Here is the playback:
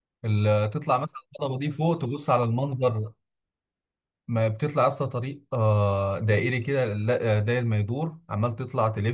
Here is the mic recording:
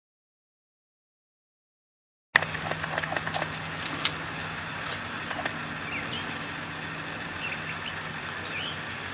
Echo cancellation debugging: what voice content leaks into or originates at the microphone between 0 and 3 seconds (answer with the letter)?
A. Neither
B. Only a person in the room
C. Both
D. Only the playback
A